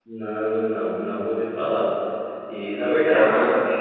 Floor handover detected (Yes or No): No